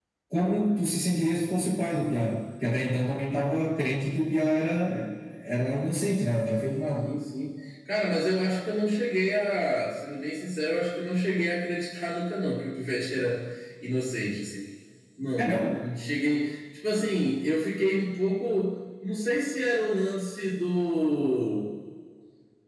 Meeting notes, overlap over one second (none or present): none